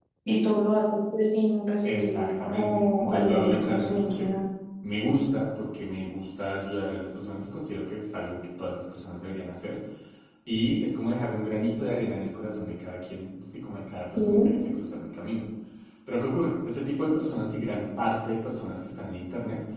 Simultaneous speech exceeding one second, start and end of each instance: 1.8-4.3

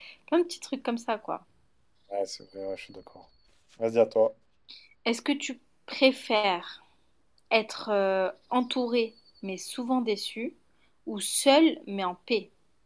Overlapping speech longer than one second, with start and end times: none

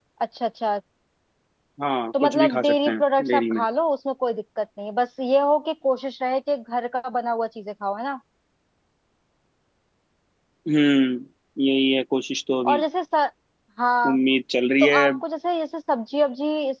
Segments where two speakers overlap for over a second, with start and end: 2.2-3.6

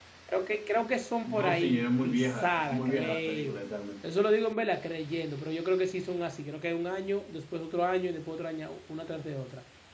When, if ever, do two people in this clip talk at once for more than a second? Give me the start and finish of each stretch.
1.3-3.6

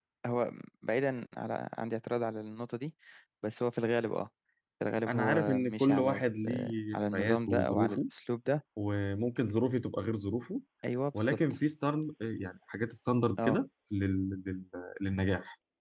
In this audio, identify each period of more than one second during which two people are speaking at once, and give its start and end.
5.1-8.0

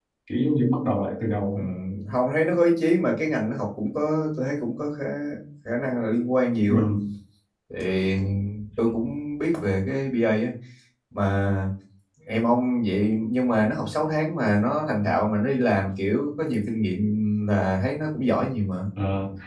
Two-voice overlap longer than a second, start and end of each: none

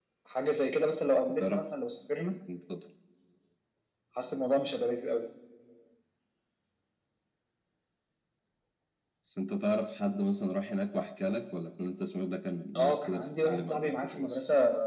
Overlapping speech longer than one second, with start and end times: 12.8-14.4

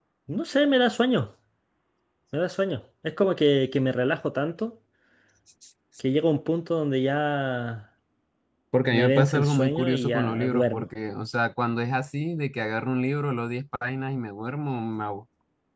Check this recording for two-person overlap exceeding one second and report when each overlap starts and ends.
8.9-10.8

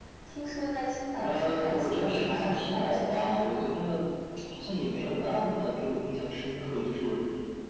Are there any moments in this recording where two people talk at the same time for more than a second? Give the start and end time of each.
1.2-3.7

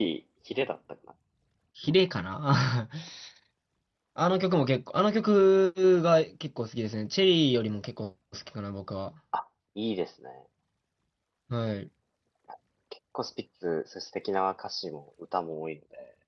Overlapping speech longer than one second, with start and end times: none

